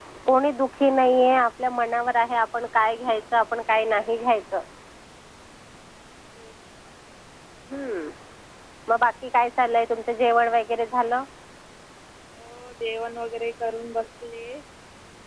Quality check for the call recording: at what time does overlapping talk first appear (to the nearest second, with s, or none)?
none